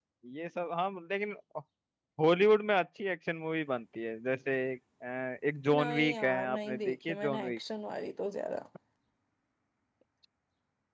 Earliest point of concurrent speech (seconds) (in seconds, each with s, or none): 5.7 s